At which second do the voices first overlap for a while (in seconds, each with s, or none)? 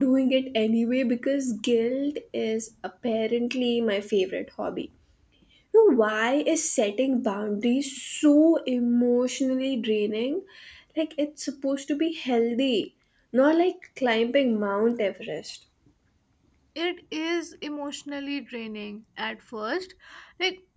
none